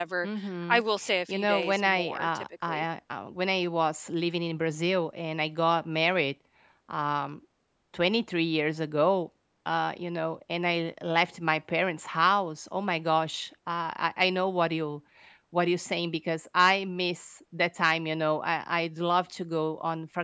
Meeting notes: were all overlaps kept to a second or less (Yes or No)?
No